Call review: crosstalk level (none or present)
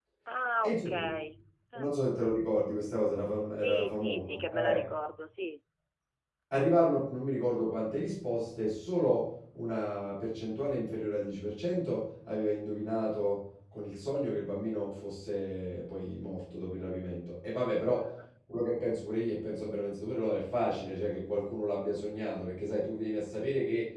present